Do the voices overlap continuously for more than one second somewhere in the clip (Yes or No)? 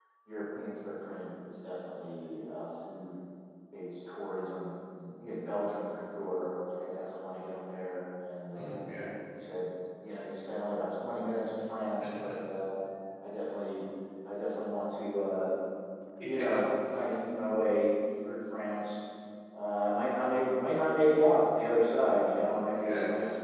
No